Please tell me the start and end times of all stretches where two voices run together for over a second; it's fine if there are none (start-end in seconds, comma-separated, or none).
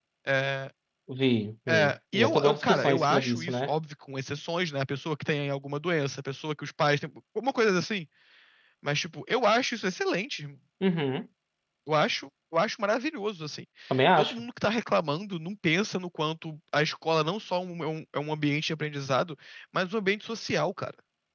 1.7-3.7